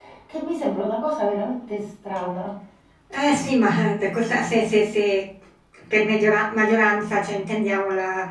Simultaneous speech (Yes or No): No